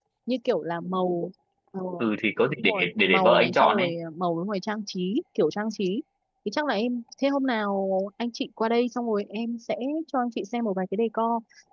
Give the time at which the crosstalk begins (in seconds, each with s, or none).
2.6 s